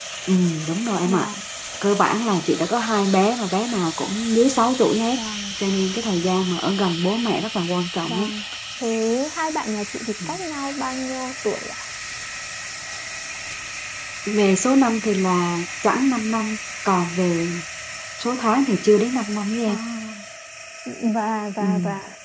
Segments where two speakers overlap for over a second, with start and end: none

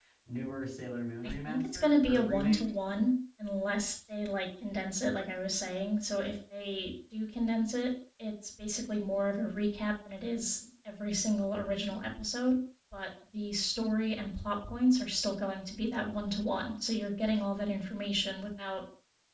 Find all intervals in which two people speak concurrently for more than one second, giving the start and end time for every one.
1.2-2.6

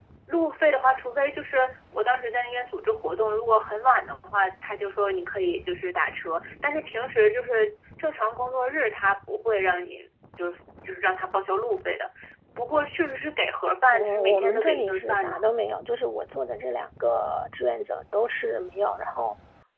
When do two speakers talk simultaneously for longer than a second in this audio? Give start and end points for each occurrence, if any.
13.9-15.4

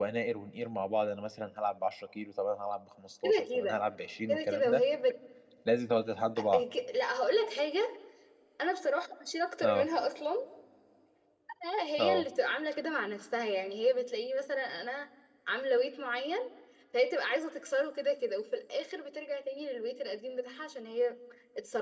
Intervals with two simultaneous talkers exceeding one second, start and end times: none

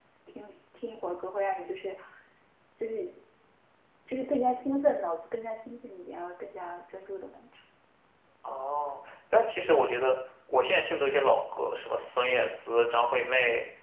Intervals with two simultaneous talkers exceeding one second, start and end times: none

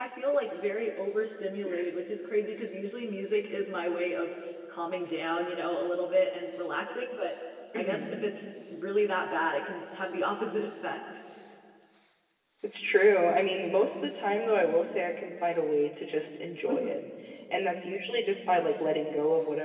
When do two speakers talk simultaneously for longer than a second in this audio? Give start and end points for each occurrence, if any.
none

